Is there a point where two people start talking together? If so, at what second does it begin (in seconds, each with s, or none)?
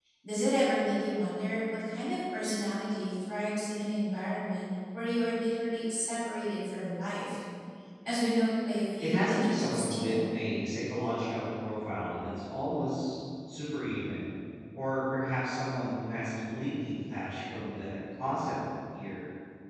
9.0 s